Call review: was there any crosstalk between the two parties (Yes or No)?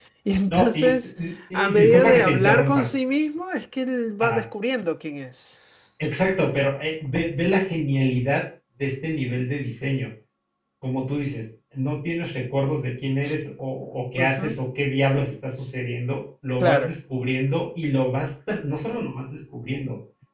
Yes